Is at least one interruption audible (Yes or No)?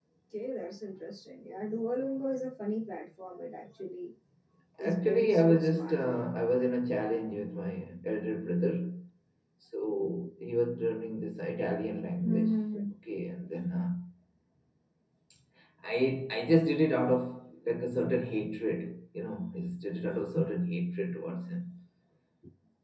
Yes